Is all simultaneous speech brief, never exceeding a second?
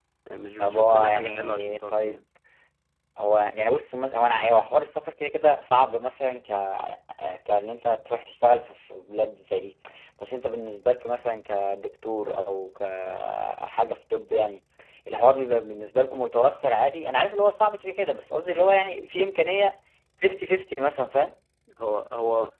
No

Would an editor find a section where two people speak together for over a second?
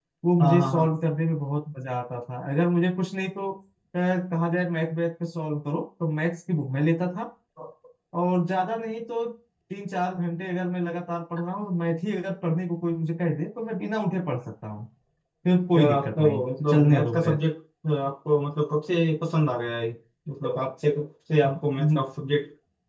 Yes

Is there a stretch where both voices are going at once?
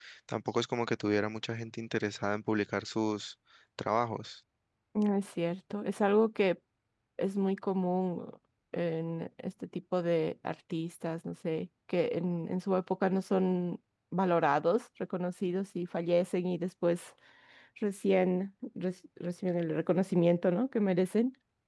No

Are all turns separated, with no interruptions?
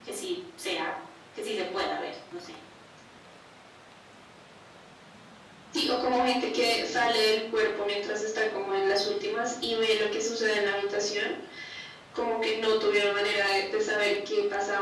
Yes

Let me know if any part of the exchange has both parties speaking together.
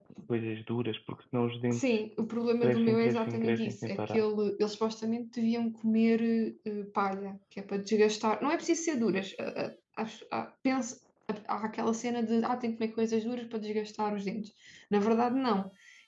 Yes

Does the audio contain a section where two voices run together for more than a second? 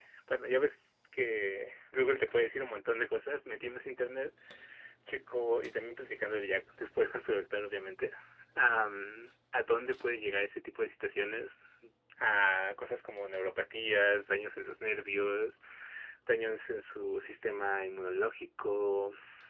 No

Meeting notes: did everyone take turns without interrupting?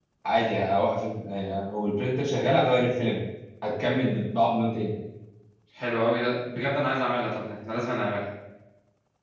Yes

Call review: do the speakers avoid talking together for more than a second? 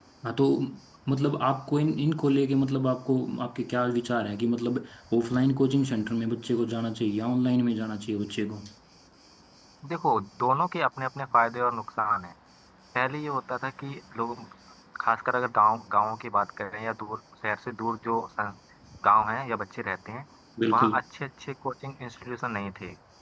Yes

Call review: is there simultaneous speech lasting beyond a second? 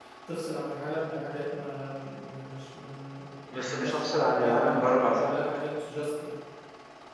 Yes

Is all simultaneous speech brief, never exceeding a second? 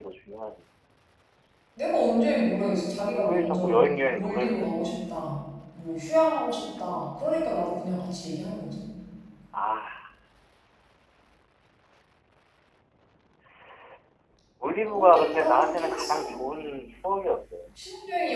No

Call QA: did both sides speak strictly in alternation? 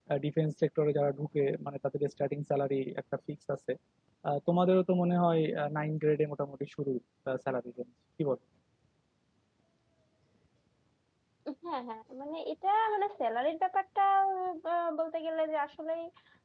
Yes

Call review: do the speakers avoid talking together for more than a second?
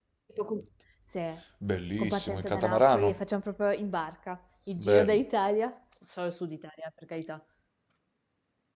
No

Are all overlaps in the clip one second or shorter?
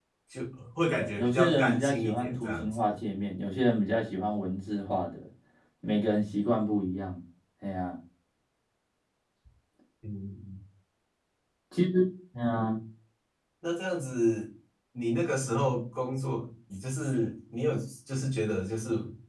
No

